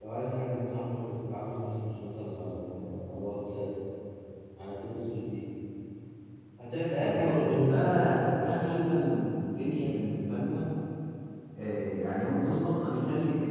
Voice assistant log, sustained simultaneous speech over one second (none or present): present